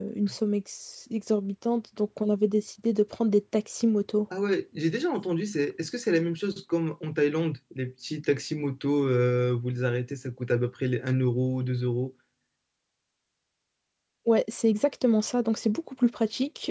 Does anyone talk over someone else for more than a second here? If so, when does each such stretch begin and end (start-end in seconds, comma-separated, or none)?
none